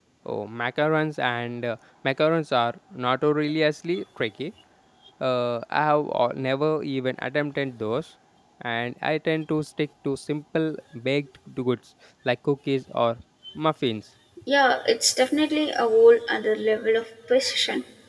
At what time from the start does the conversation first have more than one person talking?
none

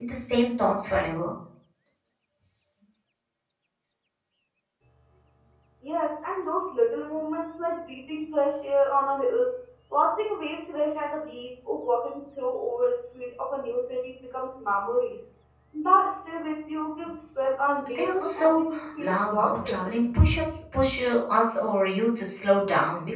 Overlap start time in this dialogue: 17.9 s

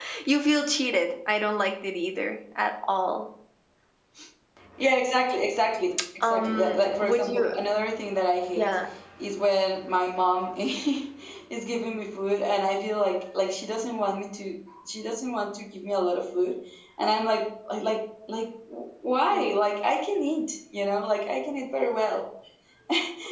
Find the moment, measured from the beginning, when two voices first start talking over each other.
6.2 s

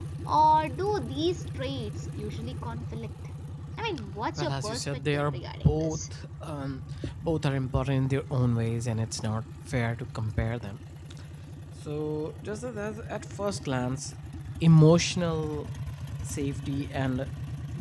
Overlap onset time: 4.4 s

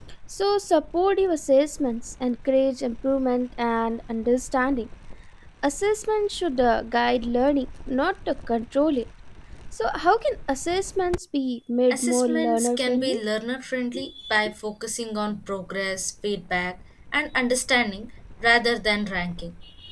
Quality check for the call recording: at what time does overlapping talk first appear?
11.9 s

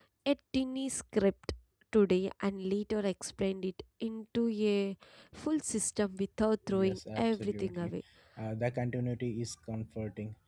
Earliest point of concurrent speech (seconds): 6.7 s

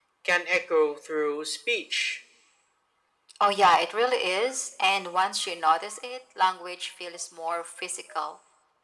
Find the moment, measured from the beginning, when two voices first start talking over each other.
none

